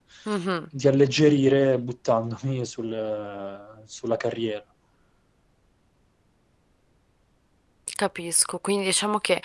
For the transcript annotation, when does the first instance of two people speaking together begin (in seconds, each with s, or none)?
none